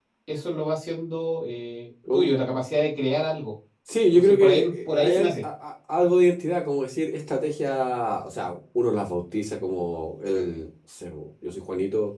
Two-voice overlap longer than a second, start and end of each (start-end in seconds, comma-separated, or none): 4.1-5.3